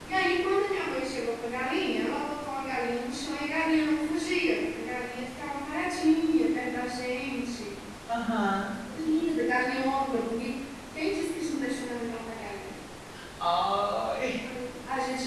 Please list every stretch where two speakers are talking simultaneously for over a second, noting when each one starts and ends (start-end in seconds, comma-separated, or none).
none